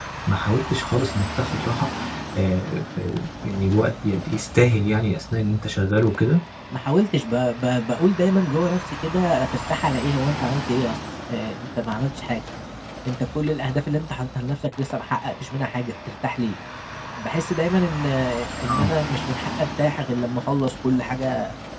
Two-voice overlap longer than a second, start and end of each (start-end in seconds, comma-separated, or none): none